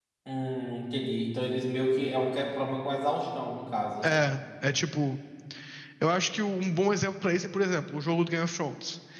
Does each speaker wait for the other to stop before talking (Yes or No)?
Yes